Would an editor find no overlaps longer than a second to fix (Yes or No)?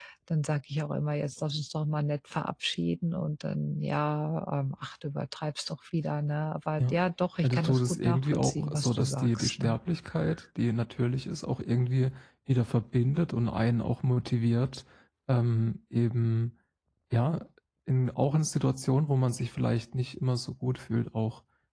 No